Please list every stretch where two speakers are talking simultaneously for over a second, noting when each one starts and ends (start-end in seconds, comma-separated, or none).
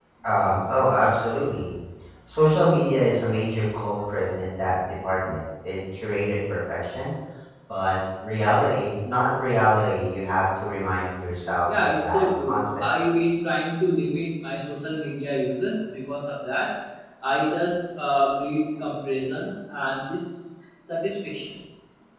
11.8-13.0